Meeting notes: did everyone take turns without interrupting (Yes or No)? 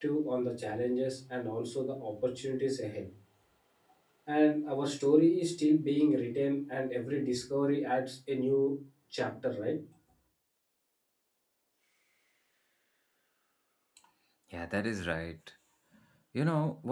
Yes